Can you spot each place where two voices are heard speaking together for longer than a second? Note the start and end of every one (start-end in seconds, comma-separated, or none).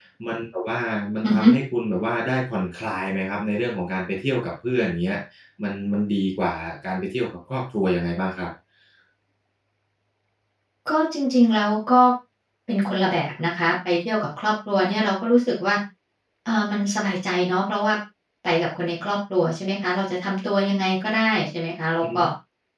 none